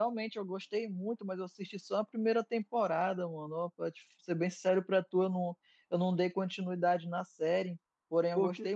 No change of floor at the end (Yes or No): Yes